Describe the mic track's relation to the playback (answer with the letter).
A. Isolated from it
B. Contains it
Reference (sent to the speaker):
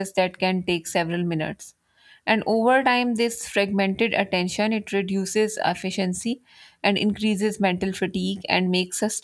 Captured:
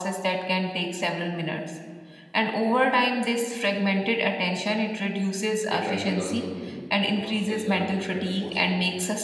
B